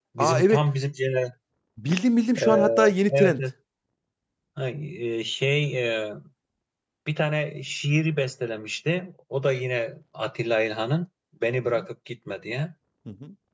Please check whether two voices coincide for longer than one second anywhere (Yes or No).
No